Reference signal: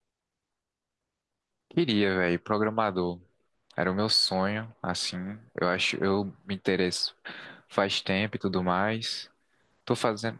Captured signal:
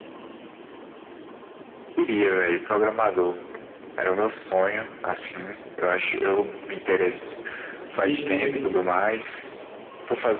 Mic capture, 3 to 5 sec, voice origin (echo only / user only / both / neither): echo only